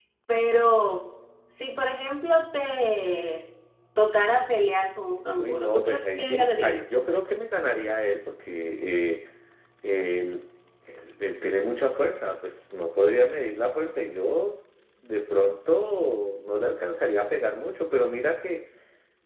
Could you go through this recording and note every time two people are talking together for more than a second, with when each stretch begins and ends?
5.4-6.9

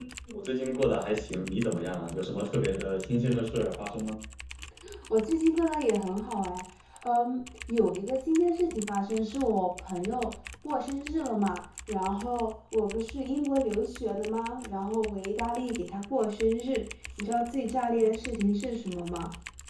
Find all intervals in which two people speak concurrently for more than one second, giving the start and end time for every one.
none

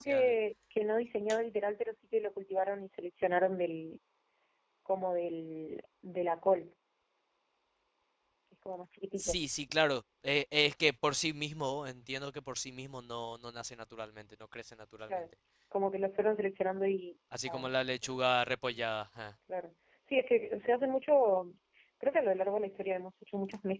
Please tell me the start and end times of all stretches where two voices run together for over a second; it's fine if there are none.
none

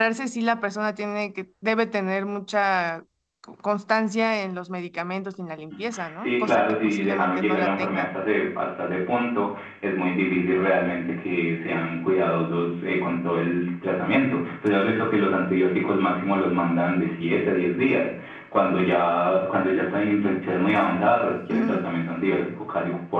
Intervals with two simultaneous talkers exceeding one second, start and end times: 6.2-8.0

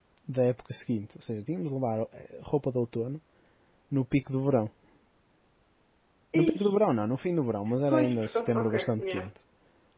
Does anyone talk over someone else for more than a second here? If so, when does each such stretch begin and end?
7.9-9.3

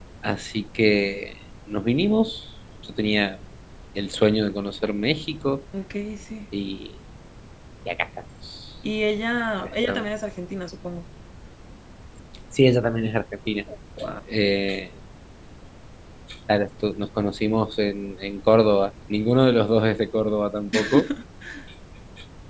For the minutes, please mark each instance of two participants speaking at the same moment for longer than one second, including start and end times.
none

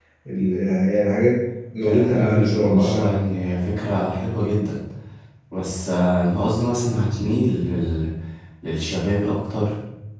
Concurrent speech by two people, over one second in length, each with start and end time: 1.8-3.1

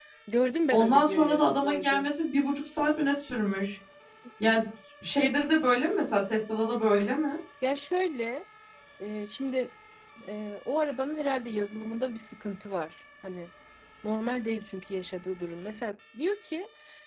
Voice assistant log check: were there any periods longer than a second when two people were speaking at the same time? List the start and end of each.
0.7-2.1

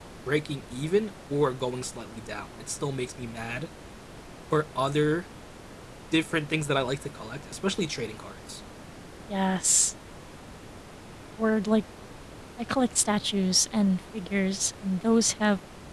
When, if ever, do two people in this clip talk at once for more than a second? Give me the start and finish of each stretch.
none

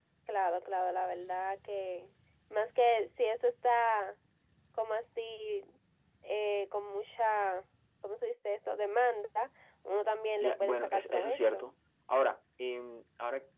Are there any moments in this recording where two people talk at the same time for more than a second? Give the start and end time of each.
10.4-11.6

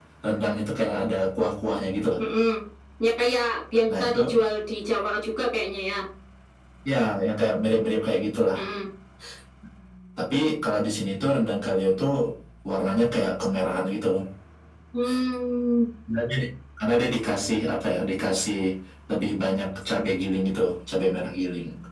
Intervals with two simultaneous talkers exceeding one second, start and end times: none

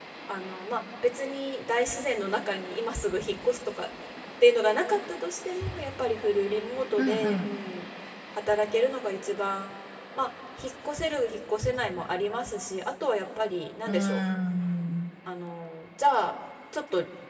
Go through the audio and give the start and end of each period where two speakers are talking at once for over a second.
none

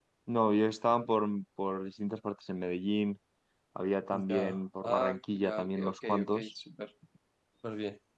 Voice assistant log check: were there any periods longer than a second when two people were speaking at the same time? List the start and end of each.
4.3-6.5

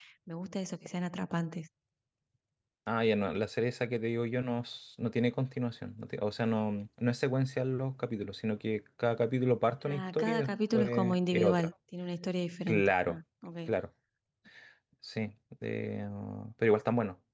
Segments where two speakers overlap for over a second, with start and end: 9.9-11.7

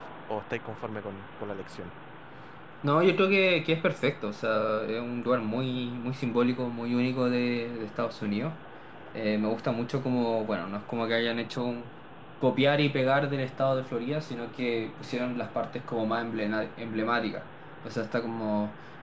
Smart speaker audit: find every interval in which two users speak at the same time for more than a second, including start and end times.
none

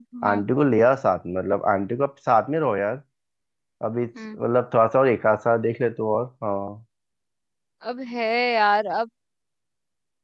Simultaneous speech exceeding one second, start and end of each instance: none

